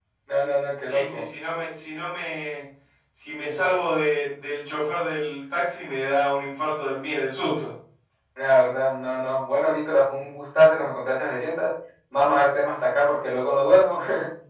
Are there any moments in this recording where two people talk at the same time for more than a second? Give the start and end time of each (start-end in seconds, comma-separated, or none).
none